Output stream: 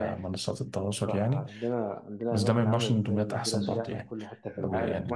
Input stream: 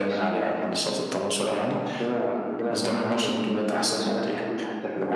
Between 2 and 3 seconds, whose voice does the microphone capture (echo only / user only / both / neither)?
echo only